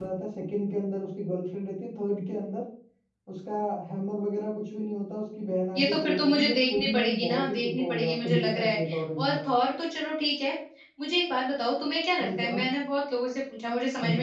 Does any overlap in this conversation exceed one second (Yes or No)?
Yes